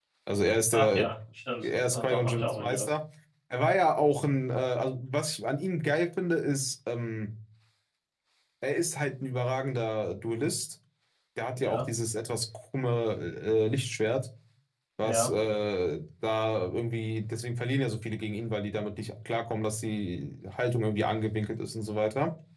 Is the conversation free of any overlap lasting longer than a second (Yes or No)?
No